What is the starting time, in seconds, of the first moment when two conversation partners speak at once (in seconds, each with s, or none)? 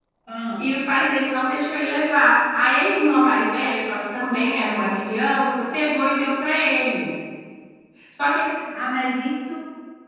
none